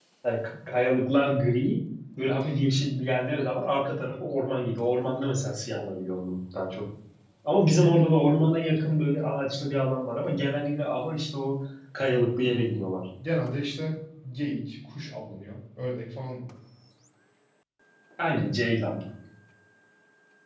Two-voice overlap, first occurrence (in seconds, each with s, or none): none